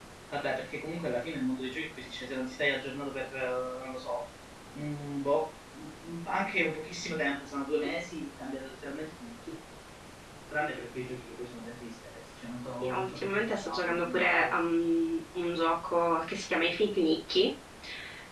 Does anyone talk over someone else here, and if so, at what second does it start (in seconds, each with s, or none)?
12.8 s